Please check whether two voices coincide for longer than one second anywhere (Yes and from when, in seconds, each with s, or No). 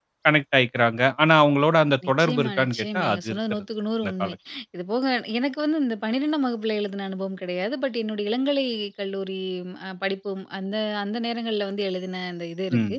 Yes, from 2.0 s